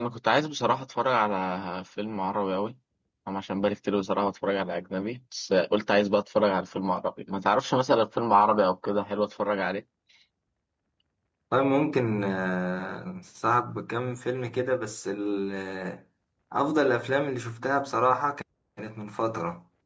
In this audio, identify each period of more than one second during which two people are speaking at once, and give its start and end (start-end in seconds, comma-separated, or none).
none